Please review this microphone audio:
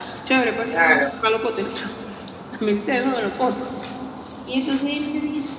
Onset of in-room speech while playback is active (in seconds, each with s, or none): 0.7 s